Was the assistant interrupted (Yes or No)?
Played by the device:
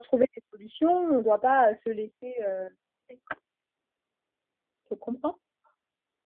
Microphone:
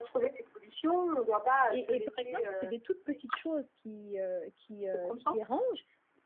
Yes